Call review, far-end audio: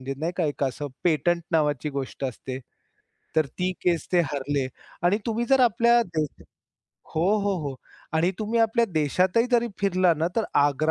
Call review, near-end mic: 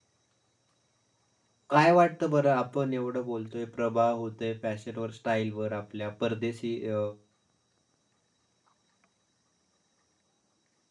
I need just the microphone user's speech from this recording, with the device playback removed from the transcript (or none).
काय वाटतं बरं आपण एवढं बोलतोय, प्रभाव होतोय फॅशनवर, स्टाईलवर आपल्या परदेशी अ,